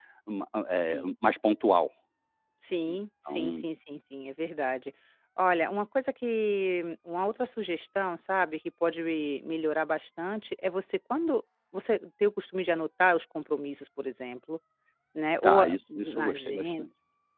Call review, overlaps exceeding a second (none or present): present